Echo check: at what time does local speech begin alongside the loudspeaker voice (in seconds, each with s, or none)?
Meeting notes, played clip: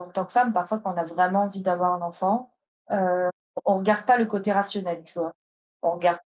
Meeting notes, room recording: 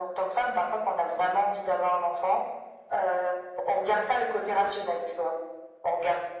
none